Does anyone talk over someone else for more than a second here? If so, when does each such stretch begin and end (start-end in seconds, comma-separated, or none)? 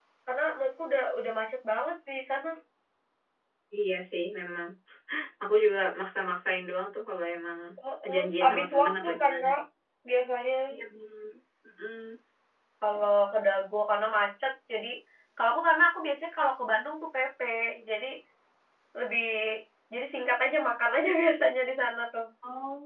8.1-9.5